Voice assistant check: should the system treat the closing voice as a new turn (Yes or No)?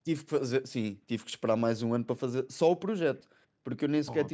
No